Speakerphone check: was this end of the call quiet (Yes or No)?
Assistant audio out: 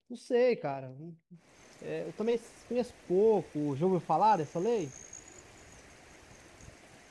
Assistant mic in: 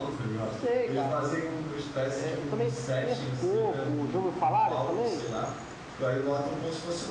No